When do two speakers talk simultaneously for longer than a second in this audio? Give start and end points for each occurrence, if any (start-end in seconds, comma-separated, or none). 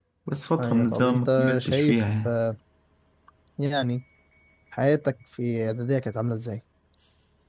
0.6-2.3